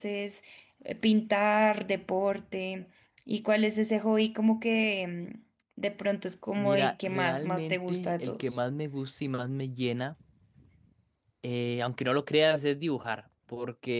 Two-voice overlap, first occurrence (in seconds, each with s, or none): 6.6 s